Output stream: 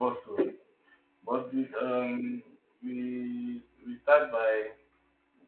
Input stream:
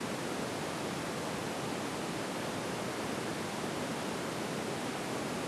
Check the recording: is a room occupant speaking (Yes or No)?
No